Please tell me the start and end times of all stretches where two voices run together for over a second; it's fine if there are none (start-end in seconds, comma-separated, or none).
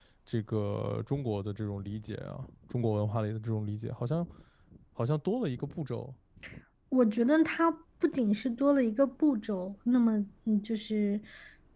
none